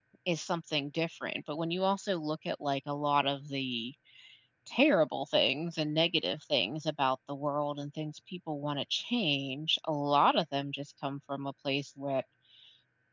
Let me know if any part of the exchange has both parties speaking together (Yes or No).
No